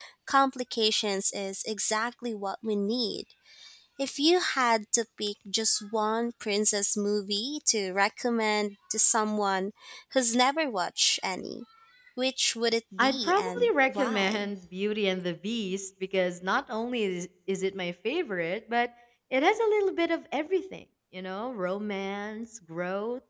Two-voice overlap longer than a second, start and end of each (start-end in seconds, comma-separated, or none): 13.0-14.5